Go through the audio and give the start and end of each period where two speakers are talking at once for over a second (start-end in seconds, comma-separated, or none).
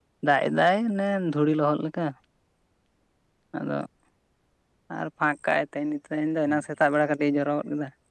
none